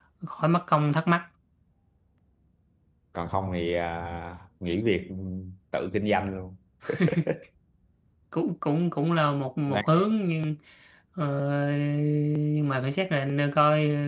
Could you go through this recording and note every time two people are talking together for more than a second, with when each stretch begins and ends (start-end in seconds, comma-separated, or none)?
none